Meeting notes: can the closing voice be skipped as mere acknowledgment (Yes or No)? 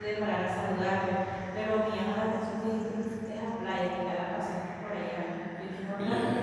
No